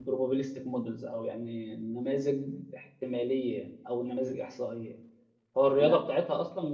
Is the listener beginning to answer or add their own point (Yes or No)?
No